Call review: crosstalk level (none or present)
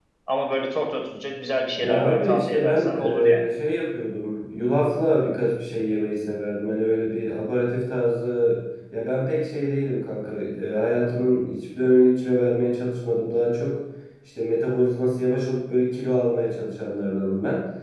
present